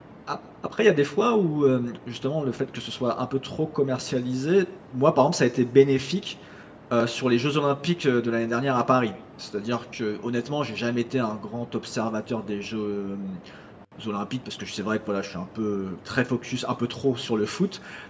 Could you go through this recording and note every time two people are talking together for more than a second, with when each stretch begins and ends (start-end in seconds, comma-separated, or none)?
none